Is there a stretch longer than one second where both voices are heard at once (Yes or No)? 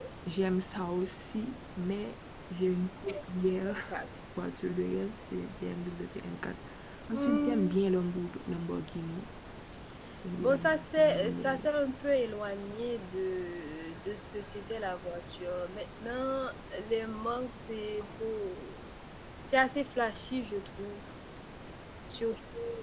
Yes